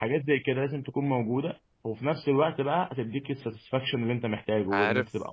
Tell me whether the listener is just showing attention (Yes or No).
No